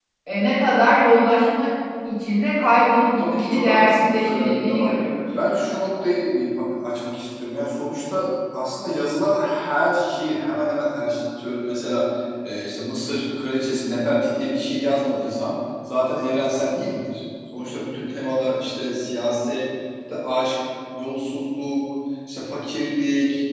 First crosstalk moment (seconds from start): 3.2 s

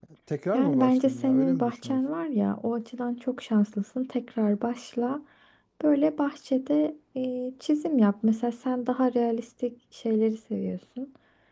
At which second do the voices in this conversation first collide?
0.5 s

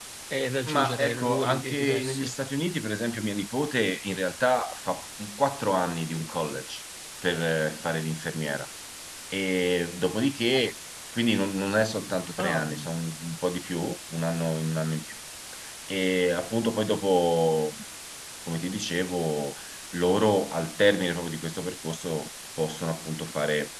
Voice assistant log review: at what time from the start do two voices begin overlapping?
0.7 s

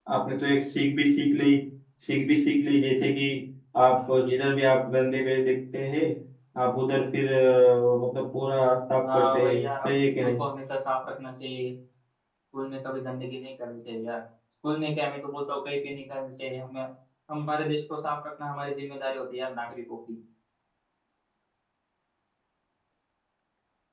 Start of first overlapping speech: 9.0 s

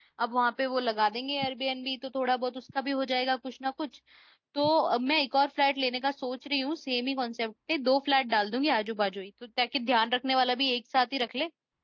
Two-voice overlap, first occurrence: none

